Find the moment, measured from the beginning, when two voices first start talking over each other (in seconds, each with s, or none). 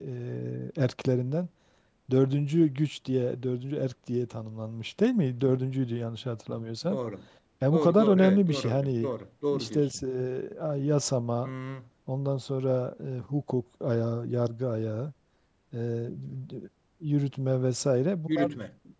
7.7 s